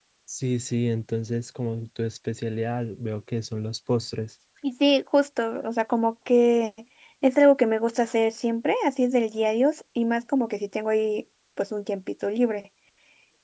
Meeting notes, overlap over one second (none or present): none